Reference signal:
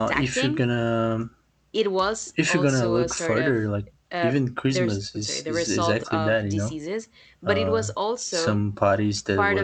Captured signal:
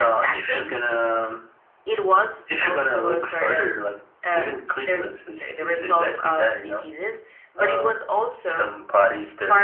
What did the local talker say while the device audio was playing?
none

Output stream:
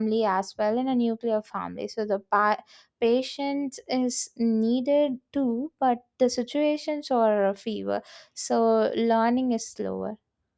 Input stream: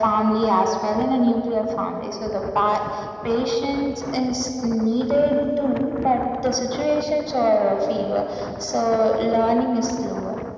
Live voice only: none

